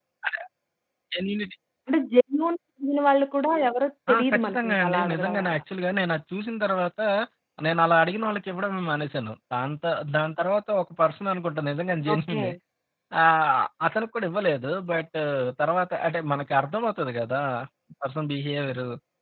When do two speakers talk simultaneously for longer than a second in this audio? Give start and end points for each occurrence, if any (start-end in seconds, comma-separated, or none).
4.3-5.6